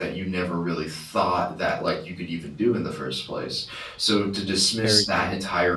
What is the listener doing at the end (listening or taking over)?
listening